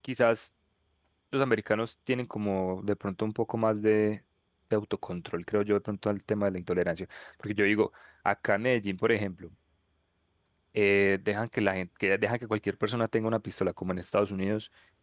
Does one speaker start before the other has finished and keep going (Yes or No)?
No